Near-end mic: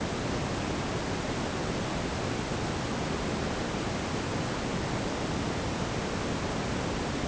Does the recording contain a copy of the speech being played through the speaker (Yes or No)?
No